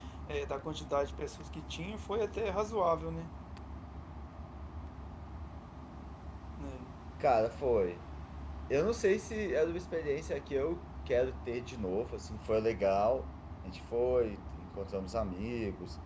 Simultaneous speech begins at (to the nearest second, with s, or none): none